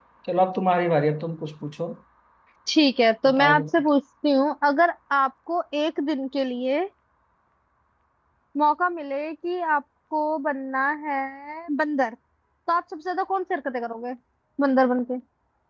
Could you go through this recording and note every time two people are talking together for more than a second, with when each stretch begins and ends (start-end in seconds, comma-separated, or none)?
none